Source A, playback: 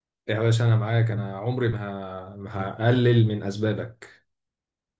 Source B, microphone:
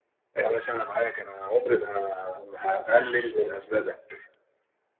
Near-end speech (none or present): present